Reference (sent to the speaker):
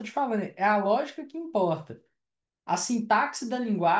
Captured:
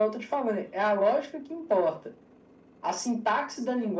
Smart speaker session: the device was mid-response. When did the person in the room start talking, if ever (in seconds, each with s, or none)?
none